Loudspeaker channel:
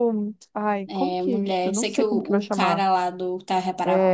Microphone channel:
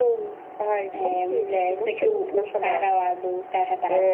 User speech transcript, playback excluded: none

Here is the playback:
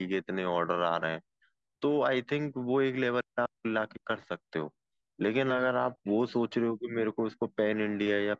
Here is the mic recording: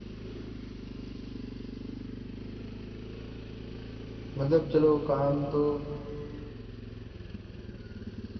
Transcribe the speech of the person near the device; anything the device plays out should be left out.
मतलब चलो काम तो

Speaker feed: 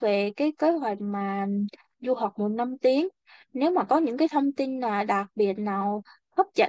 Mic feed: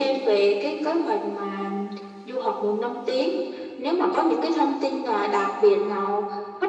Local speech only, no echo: none

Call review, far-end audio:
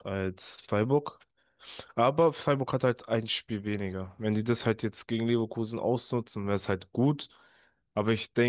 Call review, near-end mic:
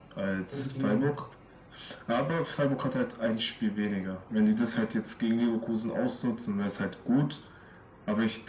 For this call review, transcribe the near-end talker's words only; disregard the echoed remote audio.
Damit sie

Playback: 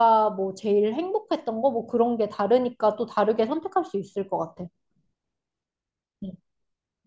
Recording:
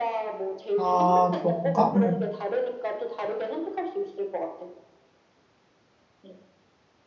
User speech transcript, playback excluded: 아, 그런가? 응,

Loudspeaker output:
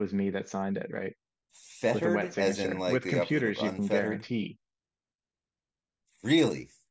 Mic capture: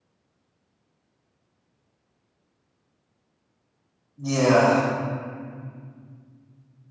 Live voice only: Yeah.

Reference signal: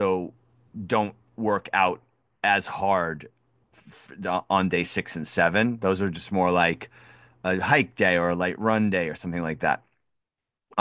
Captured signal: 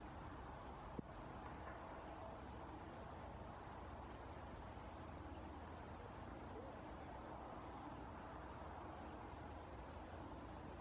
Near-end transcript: none

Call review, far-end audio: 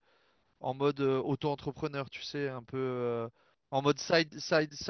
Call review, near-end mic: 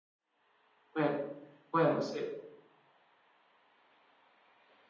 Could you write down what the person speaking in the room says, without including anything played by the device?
Ouais, ouais, moi, c'est

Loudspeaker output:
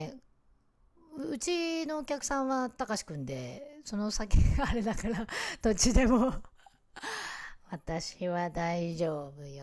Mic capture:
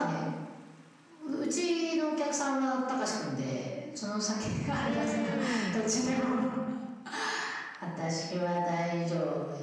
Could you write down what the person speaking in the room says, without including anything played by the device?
うーん。

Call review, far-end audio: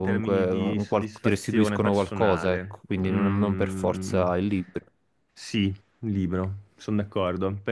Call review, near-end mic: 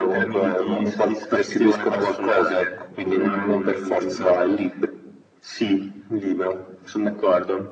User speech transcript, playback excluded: none

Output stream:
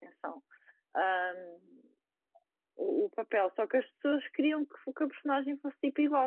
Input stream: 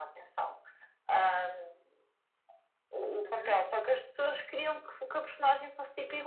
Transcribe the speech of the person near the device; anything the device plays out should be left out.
Uhum.

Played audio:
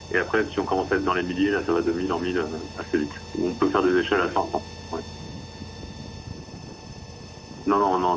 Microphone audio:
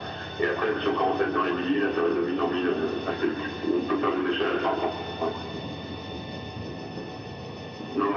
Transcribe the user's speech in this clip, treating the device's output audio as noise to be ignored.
none

